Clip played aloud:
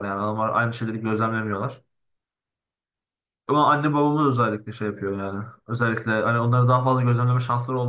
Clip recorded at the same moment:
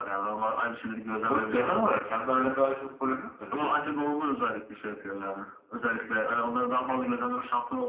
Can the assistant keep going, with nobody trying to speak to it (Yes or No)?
No